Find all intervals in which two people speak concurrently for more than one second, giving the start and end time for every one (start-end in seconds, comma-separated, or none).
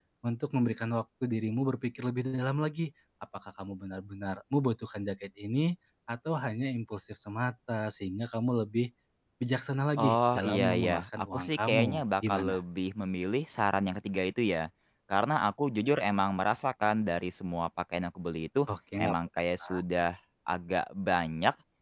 10.0-12.6